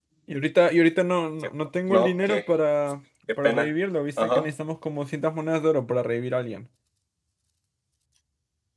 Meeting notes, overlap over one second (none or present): none